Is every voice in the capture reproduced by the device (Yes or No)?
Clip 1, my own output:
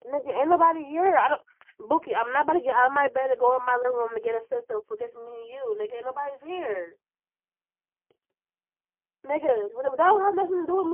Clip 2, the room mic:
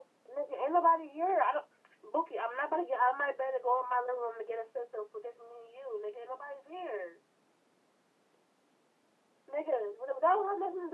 Yes